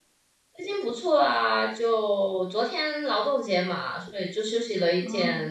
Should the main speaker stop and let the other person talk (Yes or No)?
Yes